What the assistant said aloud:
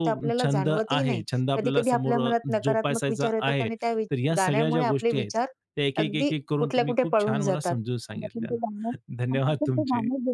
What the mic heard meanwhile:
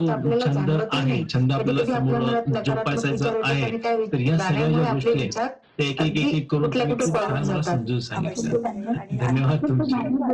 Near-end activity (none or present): present